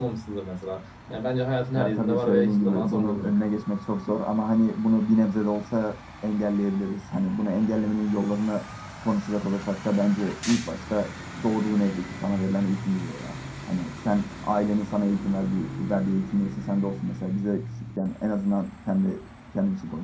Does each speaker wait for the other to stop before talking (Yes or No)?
No